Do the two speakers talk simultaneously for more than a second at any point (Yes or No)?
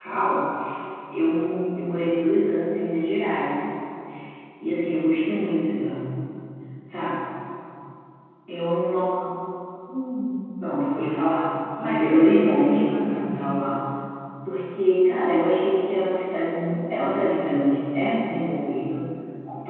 Yes